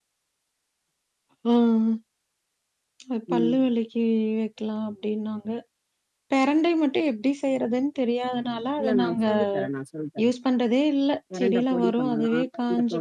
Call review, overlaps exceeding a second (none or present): present